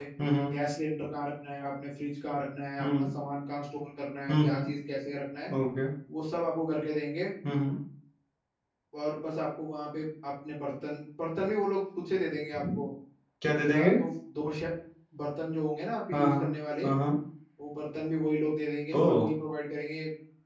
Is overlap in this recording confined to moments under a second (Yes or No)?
Yes